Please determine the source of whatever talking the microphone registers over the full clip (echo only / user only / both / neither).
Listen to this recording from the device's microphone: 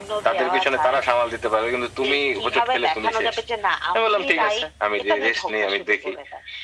echo only